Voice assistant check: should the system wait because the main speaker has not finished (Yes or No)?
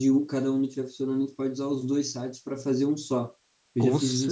Yes